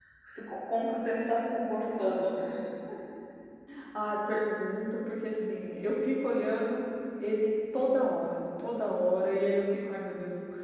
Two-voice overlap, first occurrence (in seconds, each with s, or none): none